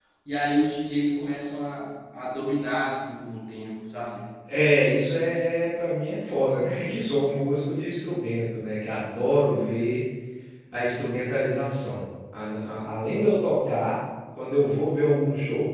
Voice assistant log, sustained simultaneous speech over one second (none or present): none